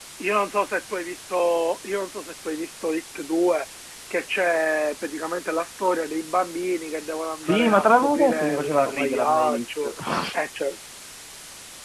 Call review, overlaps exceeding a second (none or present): present